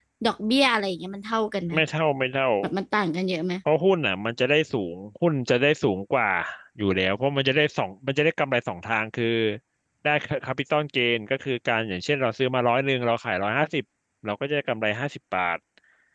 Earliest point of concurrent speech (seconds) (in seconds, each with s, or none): none